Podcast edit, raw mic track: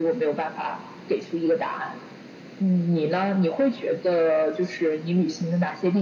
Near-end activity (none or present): none